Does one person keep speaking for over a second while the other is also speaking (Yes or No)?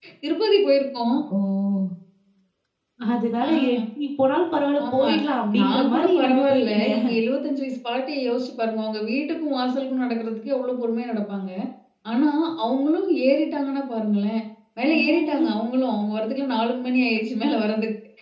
Yes